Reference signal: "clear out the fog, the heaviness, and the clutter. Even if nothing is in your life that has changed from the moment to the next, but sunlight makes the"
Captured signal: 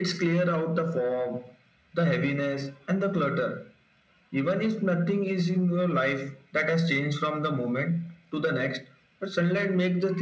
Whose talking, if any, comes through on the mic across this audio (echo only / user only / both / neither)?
echo only